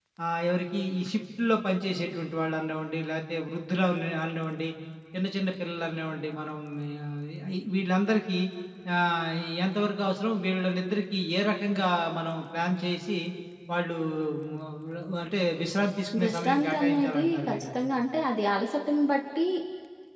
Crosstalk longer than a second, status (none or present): present